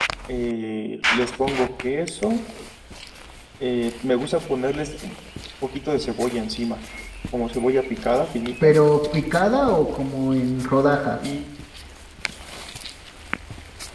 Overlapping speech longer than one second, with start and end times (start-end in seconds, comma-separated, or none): none